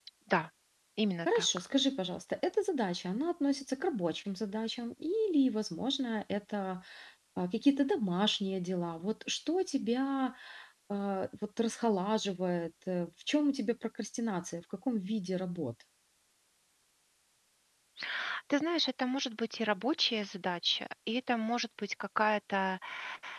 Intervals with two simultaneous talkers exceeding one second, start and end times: none

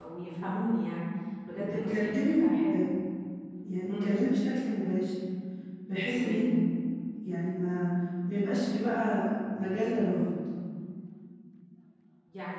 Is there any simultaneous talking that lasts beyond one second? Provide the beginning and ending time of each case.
1.6-2.8

